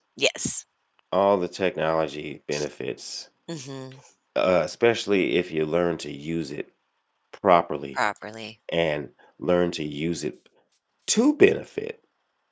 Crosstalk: none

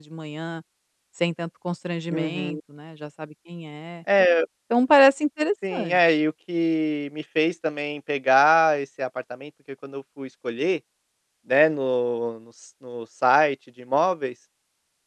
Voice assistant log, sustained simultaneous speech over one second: none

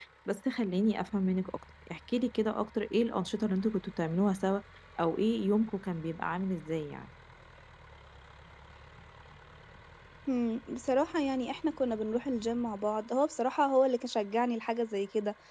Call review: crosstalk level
none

